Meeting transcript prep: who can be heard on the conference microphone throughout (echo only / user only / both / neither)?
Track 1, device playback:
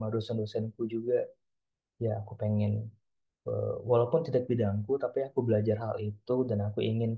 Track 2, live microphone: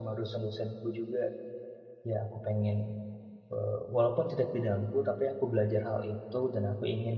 echo only